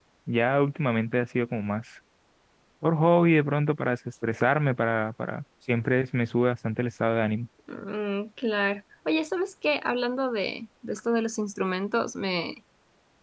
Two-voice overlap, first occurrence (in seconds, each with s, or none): none